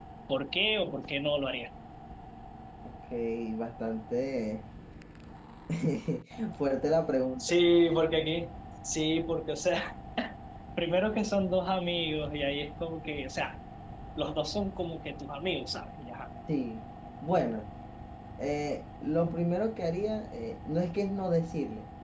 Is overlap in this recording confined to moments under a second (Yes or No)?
Yes